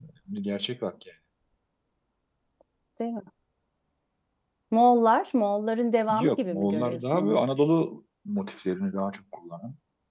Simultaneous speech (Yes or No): Yes